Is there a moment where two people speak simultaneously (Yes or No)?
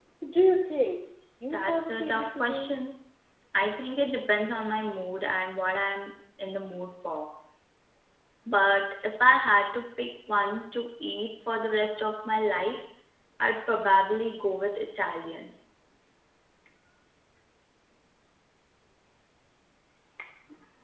Yes